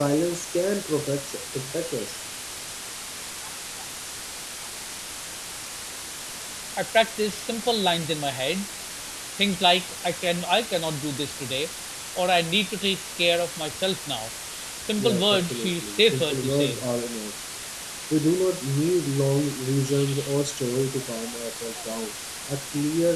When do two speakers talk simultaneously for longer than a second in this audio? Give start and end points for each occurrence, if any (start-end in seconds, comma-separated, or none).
15.0-16.8